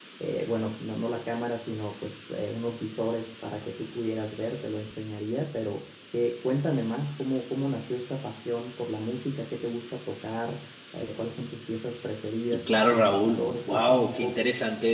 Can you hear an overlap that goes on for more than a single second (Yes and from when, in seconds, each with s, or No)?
Yes, from 12.7 s